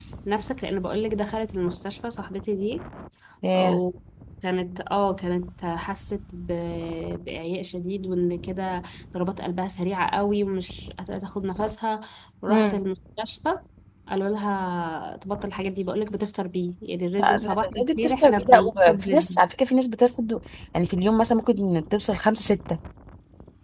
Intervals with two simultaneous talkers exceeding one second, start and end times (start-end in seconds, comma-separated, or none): 17.2-19.4